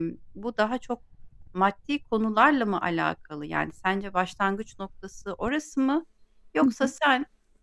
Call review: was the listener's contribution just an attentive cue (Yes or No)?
Yes